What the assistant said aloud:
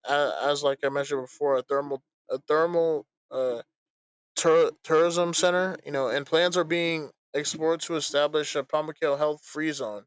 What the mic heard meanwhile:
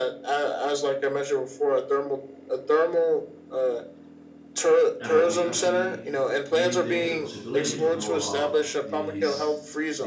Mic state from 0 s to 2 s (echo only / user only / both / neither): echo only